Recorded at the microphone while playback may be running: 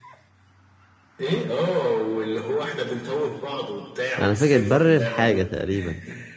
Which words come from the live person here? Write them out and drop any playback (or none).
أنا فاكر بر الحاجة تقريبا